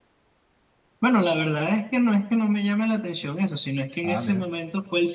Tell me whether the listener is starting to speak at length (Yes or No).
No